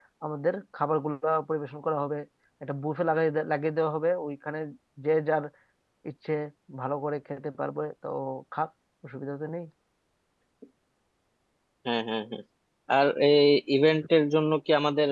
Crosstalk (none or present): none